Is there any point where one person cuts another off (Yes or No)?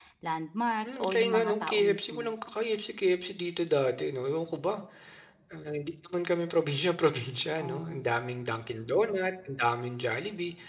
Yes